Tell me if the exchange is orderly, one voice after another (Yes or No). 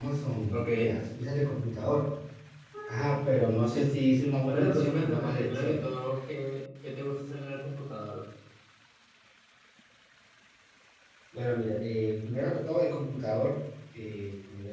No